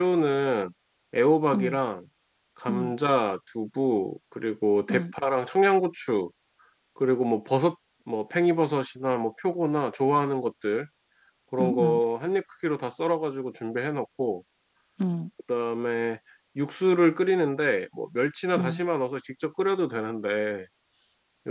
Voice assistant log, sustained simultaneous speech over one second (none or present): none